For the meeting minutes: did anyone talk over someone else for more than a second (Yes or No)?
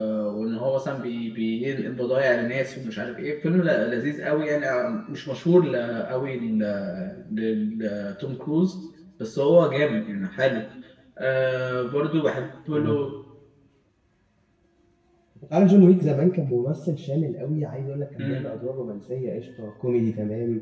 No